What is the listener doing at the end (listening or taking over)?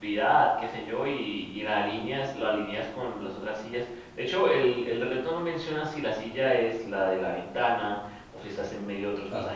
listening